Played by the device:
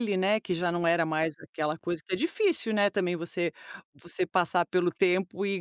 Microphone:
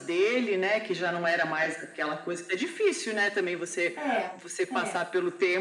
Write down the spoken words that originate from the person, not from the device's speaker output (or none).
É, é.